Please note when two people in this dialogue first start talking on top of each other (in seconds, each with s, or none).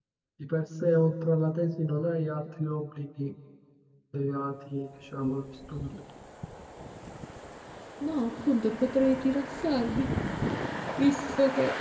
none